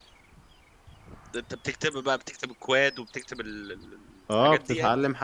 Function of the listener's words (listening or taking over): taking over